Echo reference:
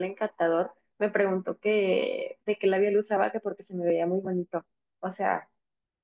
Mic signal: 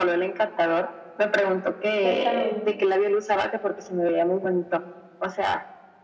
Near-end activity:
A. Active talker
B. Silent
A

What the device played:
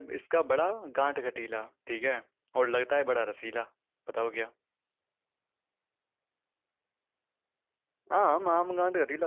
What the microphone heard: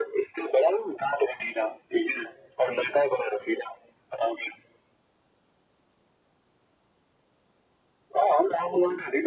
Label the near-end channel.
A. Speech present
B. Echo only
B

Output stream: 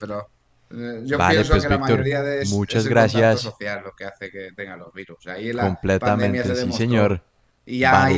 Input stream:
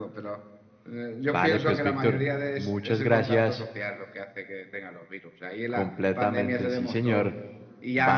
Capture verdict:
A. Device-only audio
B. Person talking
A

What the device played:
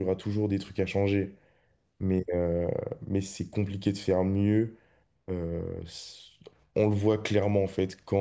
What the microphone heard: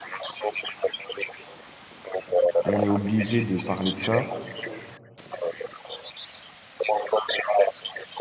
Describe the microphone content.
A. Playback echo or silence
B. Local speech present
B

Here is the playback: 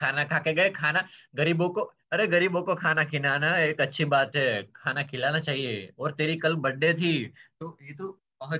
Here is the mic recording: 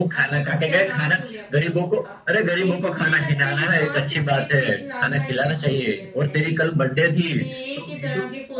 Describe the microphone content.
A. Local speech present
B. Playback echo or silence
A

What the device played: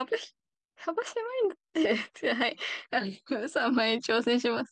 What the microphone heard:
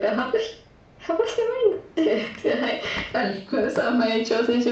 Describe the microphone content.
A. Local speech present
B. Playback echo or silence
B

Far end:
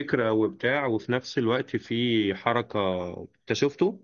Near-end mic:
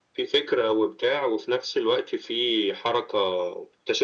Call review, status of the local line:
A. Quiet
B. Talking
A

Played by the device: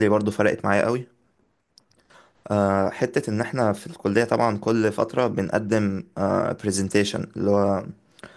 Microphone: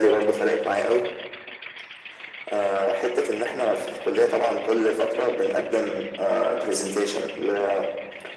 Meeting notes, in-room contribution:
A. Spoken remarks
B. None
B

